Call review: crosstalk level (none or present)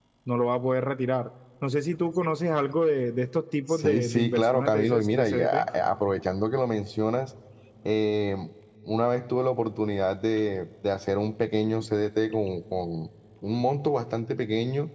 present